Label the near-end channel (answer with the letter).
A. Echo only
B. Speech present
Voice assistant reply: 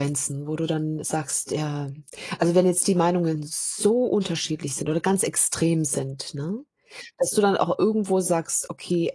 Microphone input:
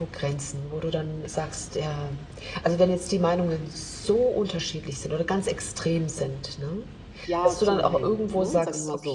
B